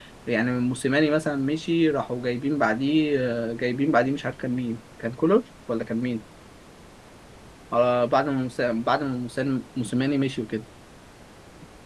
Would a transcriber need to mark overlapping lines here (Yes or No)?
No